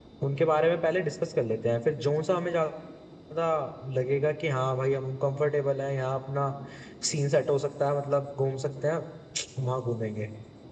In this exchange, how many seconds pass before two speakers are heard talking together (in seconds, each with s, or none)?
none